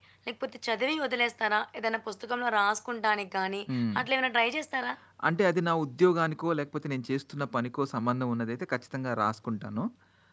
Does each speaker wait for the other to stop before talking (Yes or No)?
Yes